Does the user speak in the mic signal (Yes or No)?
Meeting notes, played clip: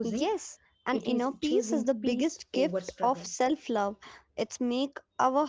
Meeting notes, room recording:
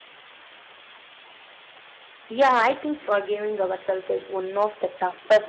Yes